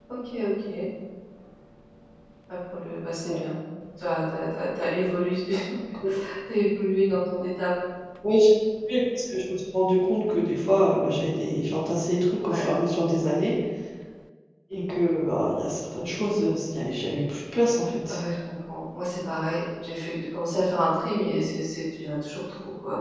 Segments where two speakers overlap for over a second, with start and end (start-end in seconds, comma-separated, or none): none